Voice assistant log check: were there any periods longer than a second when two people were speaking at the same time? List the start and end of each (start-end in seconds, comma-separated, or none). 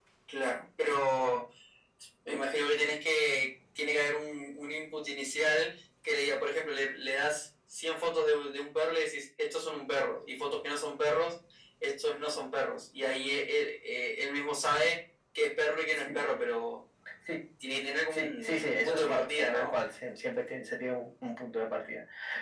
18.1-19.8